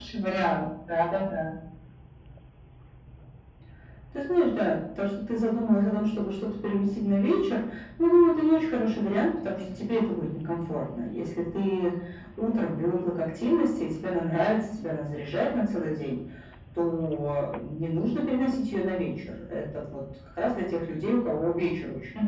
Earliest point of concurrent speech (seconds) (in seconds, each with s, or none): none